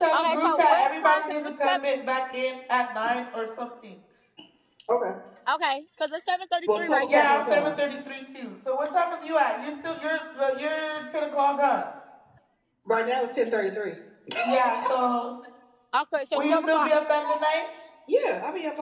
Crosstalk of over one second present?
Yes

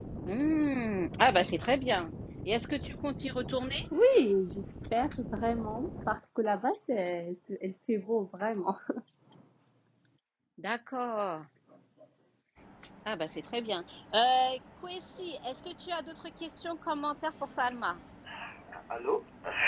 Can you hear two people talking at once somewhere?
No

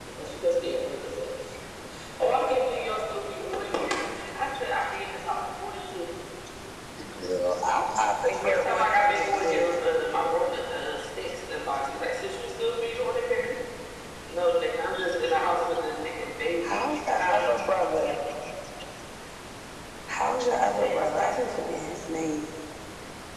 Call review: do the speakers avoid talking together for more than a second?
No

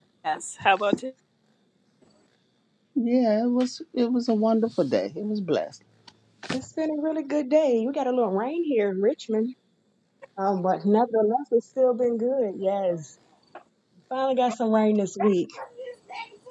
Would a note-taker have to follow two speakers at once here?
No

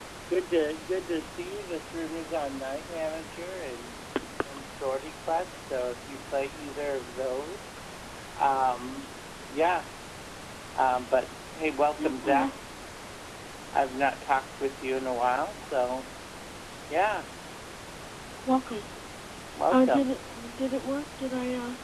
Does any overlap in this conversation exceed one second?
No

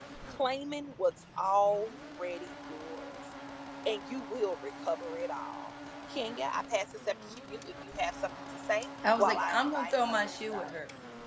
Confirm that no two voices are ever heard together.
No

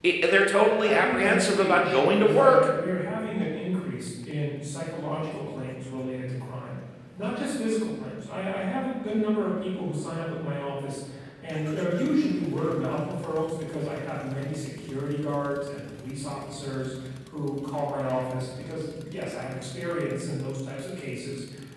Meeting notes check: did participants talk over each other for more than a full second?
Yes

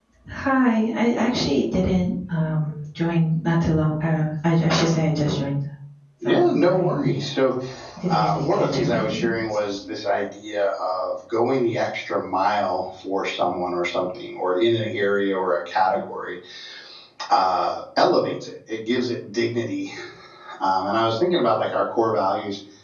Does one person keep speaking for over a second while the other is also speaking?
Yes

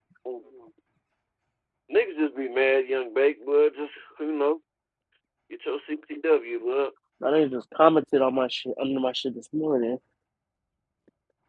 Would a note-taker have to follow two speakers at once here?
No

